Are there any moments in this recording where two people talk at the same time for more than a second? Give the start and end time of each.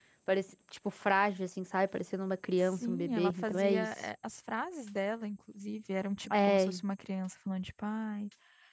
2.6-3.9

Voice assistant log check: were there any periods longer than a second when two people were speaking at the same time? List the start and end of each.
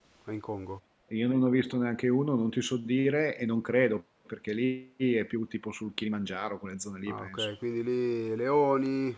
none

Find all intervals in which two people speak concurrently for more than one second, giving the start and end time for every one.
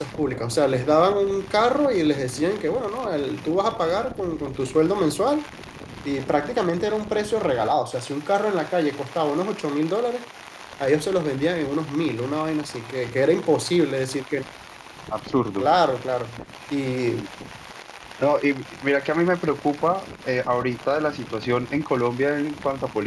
none

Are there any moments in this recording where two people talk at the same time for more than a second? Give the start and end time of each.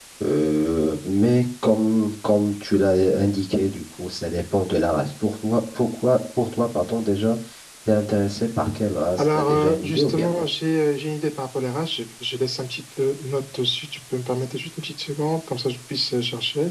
9.2-10.4

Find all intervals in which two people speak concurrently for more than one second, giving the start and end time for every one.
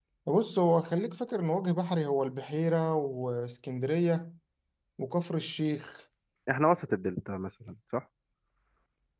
none

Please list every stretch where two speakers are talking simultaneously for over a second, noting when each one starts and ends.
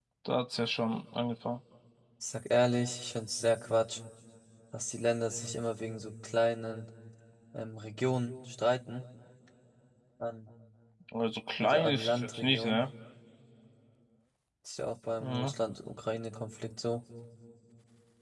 11.6-12.8

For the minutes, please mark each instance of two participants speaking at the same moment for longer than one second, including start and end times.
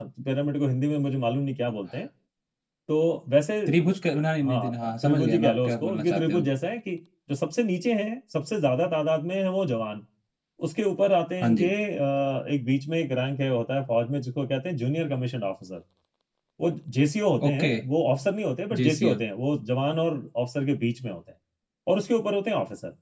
4.4-6.5

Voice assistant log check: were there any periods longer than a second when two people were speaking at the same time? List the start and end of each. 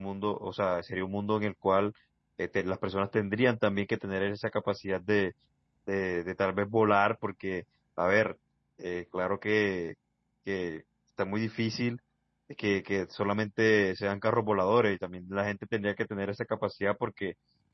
none

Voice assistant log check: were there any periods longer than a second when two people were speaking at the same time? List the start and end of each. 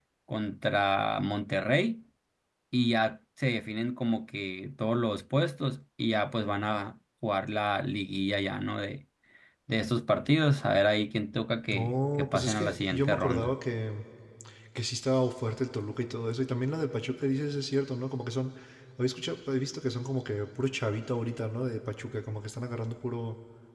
11.7-13.5

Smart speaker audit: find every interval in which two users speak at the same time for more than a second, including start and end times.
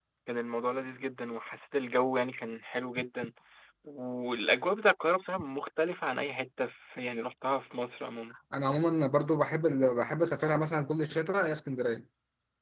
none

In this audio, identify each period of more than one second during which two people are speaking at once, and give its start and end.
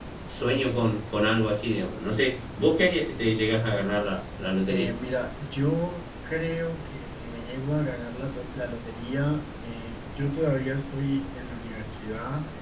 none

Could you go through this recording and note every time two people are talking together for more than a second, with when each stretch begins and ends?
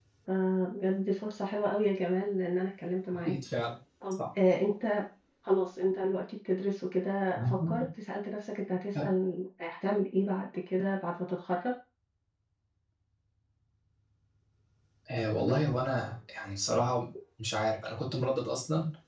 none

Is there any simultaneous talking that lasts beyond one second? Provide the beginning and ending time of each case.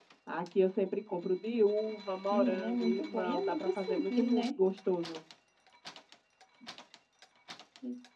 2.3-4.4

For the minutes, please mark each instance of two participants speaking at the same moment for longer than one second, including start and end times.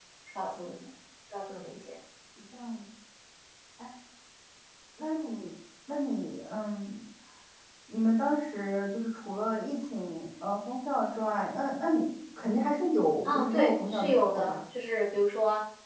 13.2-14.6

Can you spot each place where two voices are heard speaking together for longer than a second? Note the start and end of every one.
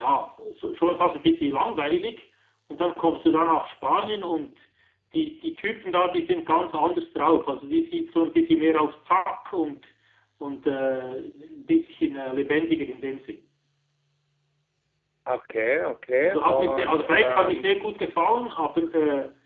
16.2-17.8

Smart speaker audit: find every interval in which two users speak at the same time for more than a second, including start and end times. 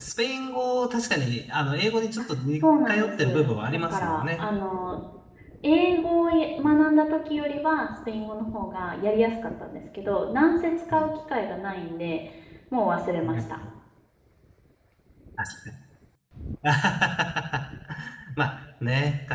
3.0-4.4

